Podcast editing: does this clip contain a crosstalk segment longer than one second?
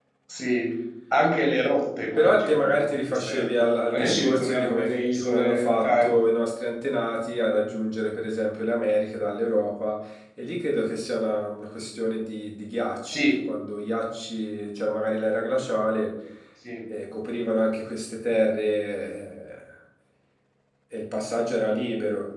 Yes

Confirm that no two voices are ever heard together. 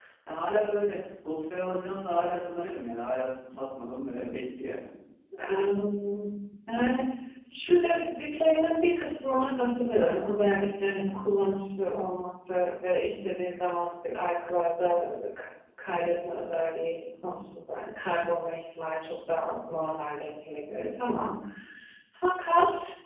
Yes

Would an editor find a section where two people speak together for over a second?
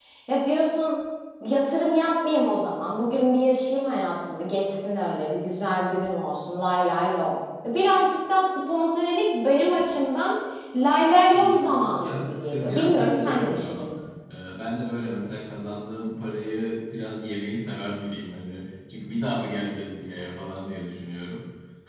Yes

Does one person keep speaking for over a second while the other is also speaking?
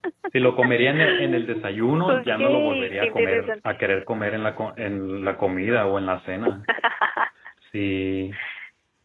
Yes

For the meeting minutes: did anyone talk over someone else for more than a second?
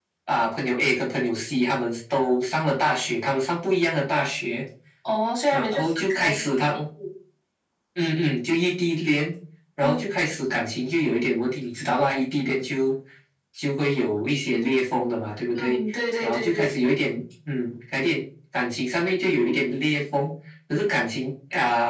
Yes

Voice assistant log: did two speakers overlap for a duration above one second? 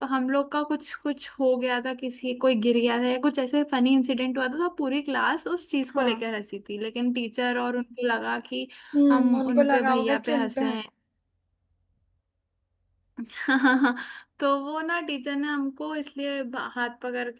Yes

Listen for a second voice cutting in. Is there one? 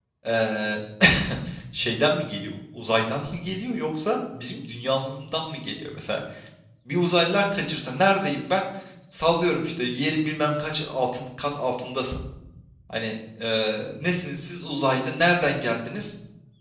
No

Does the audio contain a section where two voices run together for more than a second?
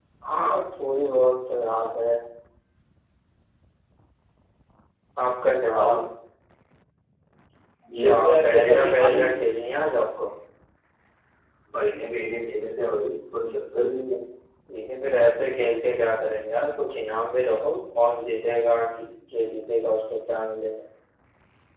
Yes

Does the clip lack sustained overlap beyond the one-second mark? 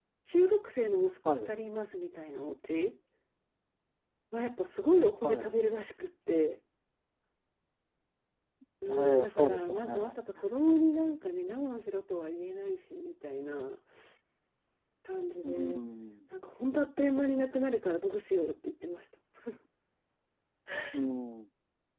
No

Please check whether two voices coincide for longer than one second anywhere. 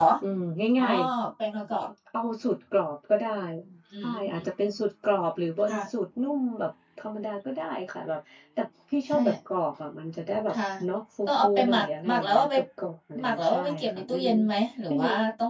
Yes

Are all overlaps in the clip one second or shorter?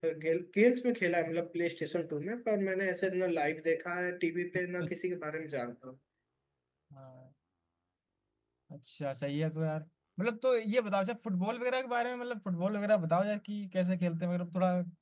Yes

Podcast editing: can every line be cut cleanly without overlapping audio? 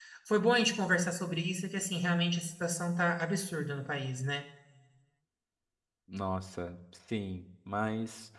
Yes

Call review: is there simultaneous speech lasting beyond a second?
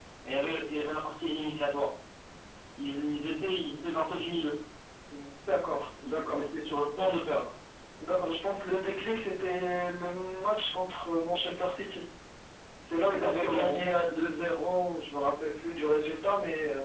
Yes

